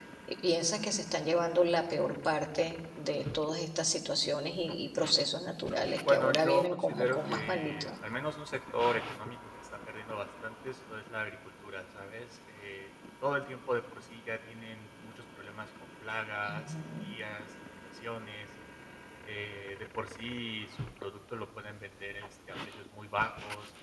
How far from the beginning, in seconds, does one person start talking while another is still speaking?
6 s

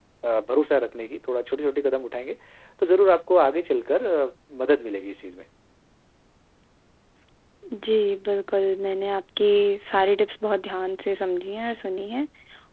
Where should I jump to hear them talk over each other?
none

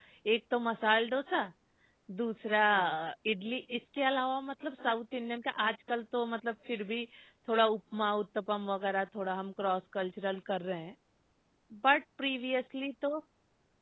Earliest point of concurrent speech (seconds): none

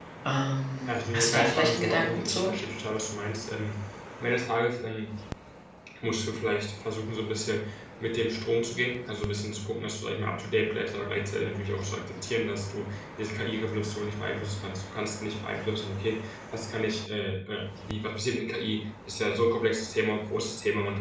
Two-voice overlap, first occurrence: 1 s

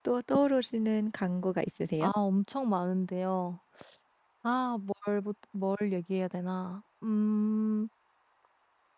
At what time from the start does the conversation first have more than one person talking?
none

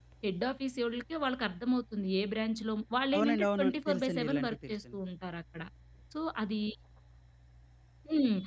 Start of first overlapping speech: 3 s

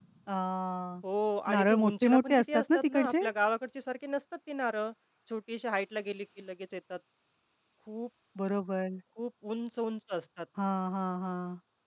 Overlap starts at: 2 s

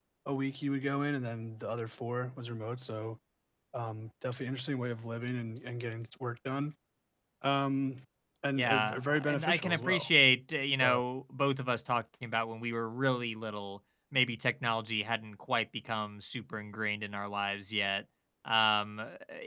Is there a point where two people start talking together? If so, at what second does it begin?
9 s

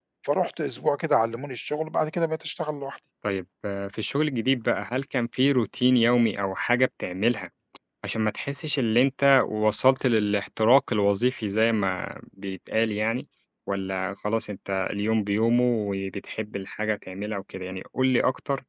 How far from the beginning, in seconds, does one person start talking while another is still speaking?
none

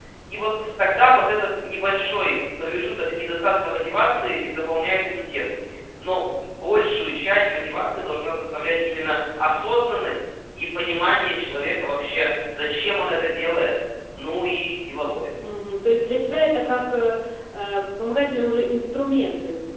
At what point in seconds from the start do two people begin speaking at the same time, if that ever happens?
none

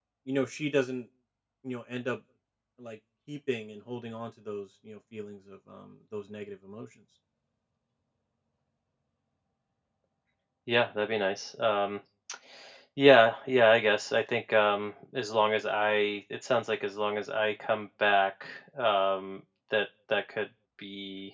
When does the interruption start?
none

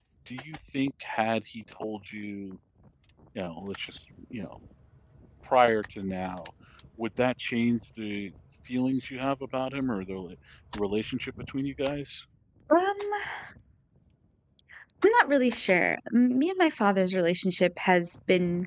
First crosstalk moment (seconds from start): none

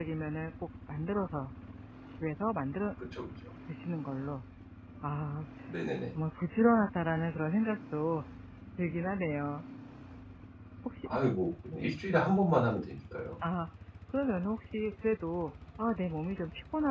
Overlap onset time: none

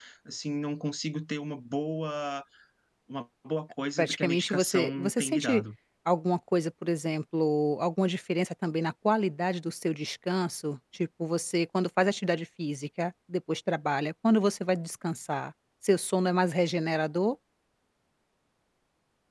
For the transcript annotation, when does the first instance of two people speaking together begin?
4 s

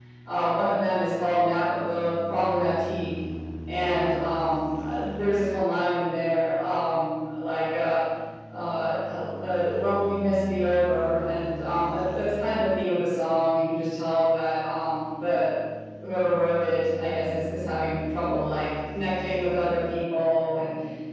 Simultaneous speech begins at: none

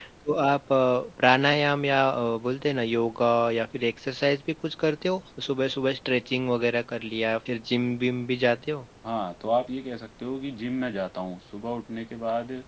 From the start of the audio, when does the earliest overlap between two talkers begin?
none

